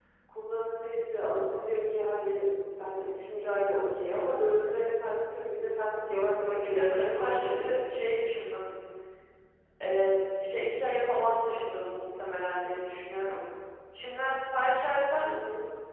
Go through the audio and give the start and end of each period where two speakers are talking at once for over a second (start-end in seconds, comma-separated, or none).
6.5-7.8